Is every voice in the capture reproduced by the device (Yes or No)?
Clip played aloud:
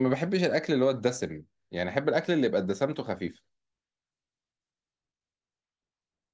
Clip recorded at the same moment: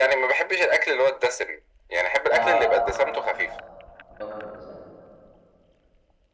No